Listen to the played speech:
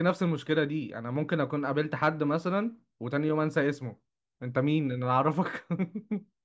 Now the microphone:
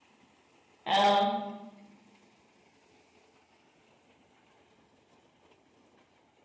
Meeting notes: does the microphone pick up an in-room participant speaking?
Yes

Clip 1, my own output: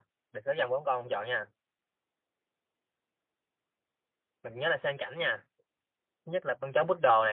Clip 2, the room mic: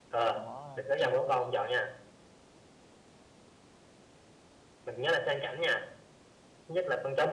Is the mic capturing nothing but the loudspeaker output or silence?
No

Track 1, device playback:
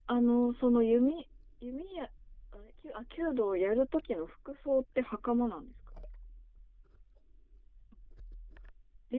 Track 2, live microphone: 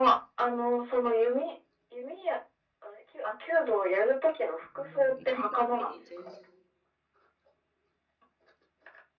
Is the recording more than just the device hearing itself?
Yes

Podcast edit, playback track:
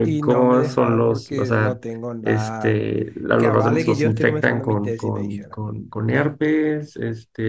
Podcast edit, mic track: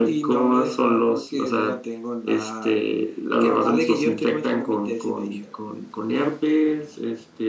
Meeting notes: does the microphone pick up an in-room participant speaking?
No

